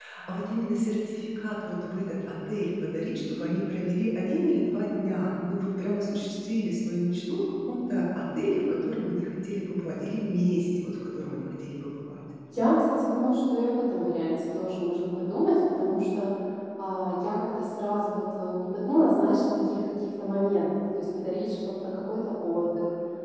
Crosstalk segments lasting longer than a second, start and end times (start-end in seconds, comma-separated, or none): none